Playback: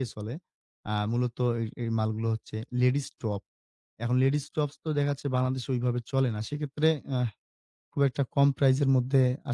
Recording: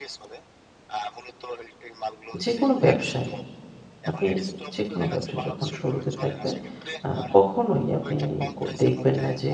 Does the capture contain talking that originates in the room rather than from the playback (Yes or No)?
Yes